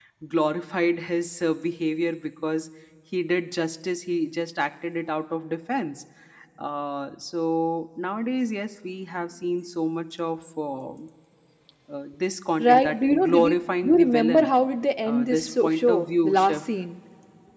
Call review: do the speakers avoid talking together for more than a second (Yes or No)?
No